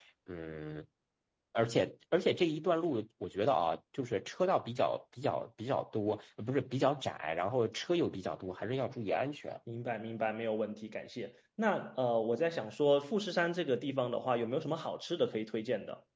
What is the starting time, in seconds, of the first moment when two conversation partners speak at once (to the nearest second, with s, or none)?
none